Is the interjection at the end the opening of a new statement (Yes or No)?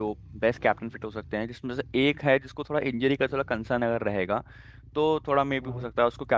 No